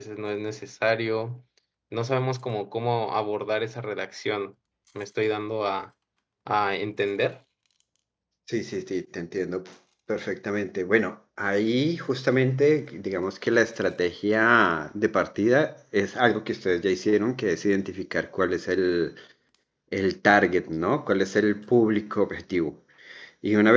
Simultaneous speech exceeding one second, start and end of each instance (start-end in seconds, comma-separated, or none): none